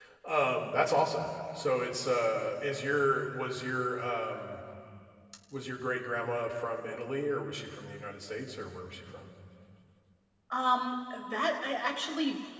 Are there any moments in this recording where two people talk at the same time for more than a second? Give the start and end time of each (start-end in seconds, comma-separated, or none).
none